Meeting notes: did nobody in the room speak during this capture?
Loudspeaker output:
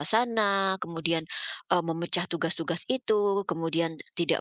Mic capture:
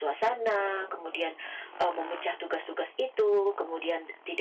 Yes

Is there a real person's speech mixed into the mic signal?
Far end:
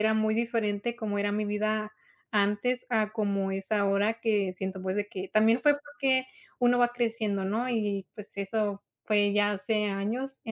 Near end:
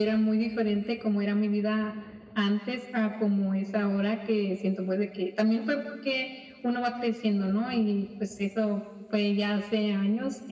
No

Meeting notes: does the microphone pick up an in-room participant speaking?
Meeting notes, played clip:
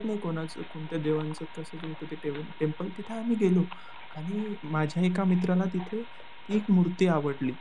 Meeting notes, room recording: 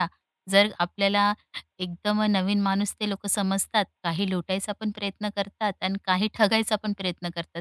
Yes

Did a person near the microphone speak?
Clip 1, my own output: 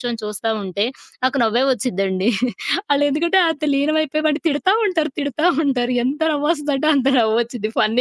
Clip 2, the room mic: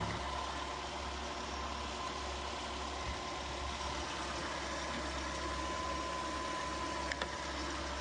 No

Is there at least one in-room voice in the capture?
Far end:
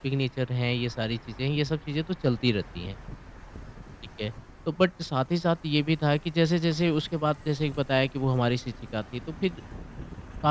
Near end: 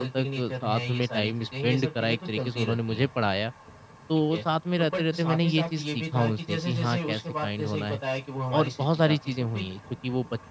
Yes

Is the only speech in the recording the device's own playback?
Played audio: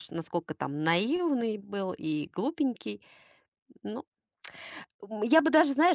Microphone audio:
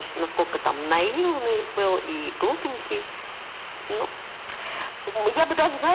Yes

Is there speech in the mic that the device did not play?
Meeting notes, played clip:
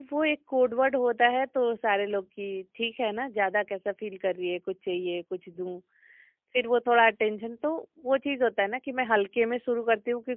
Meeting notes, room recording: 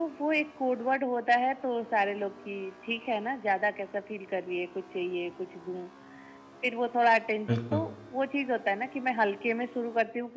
Yes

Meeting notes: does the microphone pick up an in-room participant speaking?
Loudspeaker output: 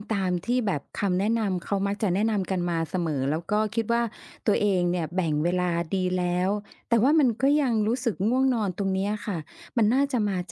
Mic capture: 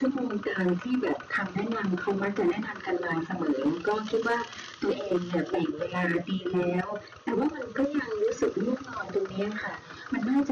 No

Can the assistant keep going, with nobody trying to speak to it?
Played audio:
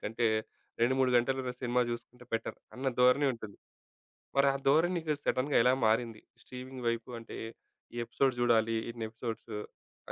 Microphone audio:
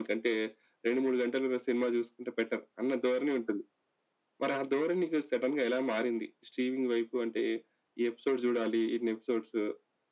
Yes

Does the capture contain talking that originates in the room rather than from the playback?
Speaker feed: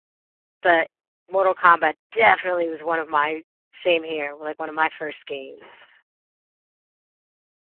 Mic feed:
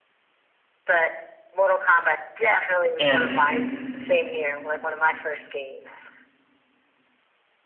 Yes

